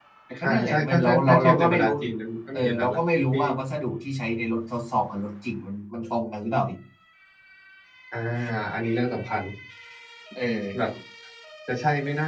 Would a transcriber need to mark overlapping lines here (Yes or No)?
Yes